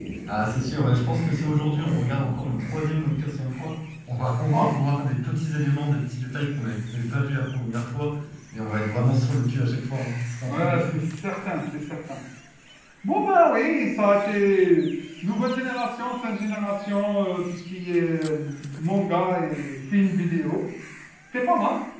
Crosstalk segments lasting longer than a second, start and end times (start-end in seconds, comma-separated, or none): none